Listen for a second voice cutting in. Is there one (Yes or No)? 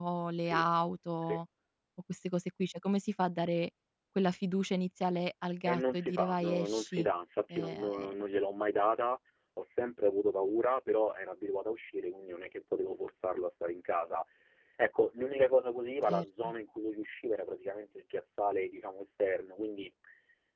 Yes